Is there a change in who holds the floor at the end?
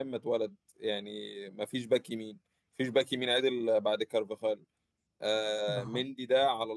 No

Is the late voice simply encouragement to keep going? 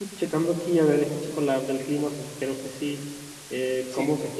Yes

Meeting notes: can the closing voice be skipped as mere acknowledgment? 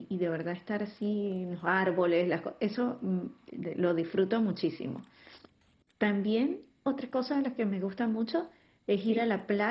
Yes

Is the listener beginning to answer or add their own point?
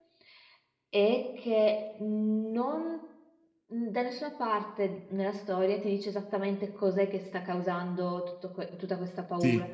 No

